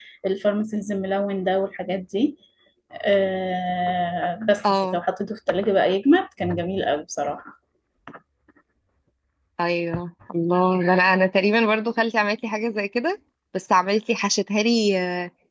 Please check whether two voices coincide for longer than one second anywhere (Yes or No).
No